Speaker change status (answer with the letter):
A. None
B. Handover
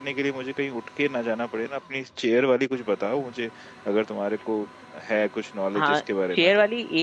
B